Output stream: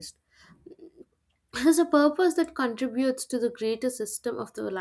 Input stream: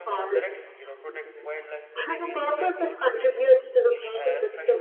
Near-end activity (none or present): present